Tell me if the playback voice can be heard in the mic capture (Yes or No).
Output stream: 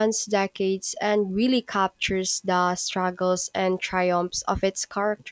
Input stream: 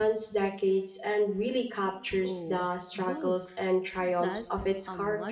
Yes